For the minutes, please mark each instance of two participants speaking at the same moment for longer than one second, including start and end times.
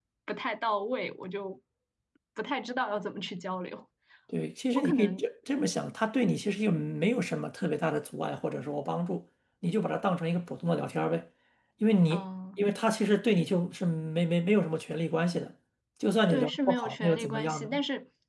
16.3-17.8

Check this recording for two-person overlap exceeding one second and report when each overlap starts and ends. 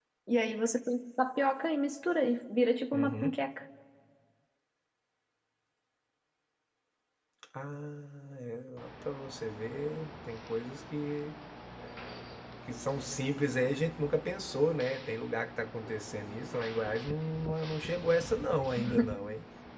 none

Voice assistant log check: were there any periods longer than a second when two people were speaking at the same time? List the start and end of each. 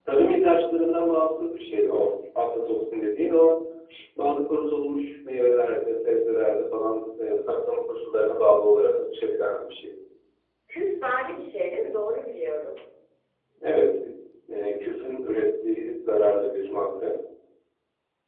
none

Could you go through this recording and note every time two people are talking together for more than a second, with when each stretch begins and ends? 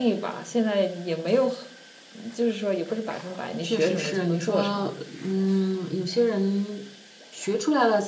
3.6-4.9

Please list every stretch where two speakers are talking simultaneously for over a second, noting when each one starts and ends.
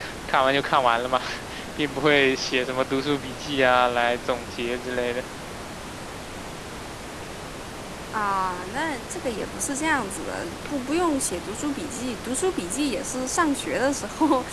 none

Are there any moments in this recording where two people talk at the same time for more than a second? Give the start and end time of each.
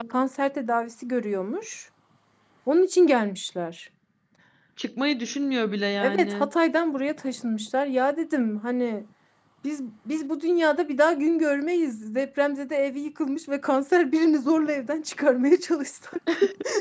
none

